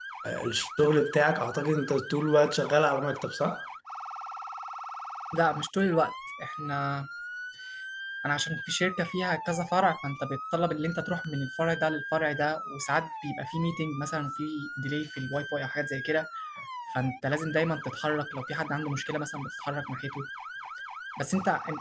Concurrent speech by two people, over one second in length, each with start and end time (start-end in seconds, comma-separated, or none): none